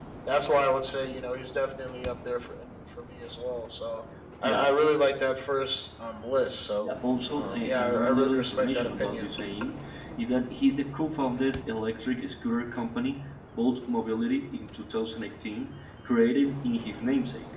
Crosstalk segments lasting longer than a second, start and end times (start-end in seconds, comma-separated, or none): 7.4-9.3